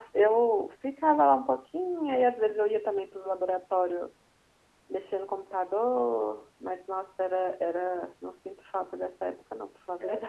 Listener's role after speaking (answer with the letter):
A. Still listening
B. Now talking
B